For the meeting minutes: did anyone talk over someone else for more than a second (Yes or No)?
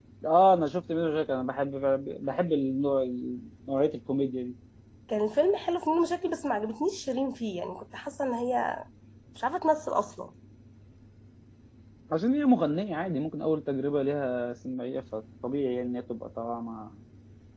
No